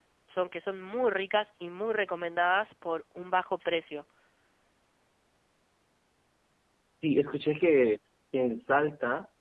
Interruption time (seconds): none

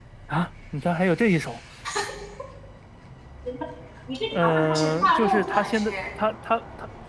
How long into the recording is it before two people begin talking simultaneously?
4.3 s

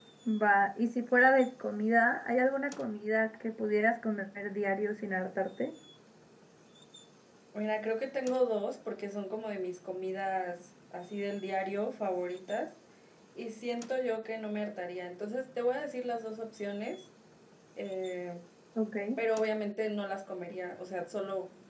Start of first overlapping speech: none

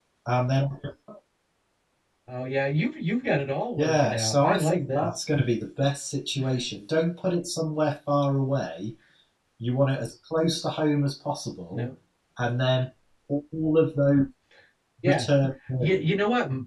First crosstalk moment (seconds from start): 3.8 s

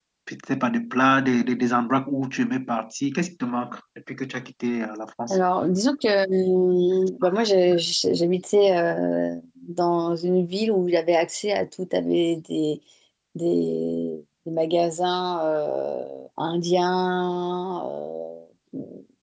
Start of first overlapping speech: none

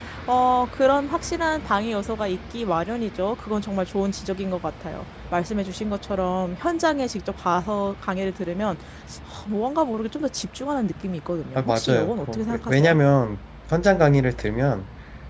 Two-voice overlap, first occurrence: 11.6 s

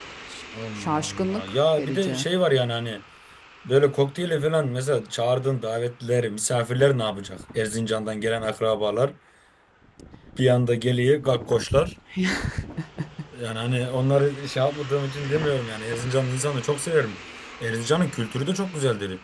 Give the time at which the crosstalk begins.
0.8 s

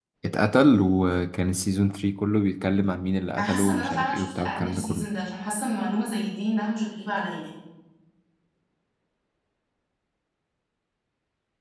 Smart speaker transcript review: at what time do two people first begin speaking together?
3.4 s

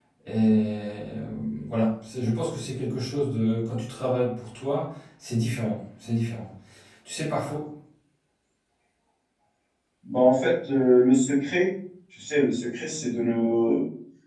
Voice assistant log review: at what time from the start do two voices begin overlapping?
none

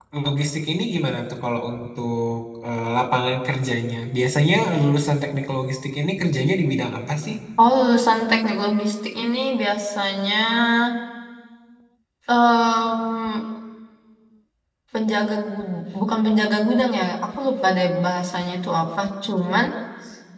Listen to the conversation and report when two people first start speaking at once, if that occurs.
none

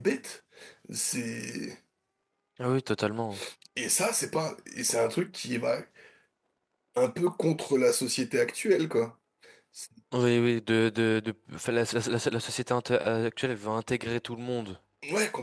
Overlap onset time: none

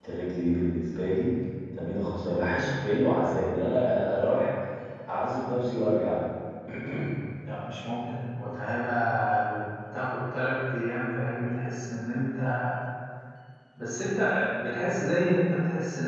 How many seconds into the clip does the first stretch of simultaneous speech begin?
none

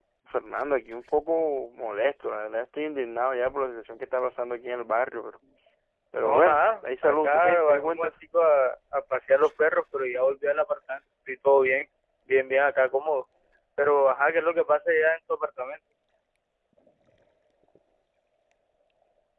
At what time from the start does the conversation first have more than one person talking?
6.2 s

